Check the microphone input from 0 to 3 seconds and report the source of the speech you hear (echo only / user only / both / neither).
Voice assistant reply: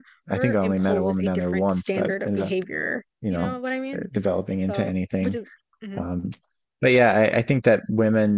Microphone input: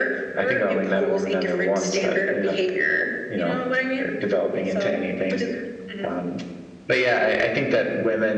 echo only